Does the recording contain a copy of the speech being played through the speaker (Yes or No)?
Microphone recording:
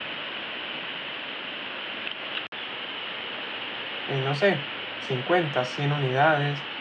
No